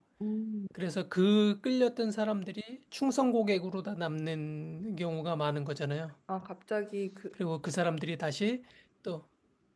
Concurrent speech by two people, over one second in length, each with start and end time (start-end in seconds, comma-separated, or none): none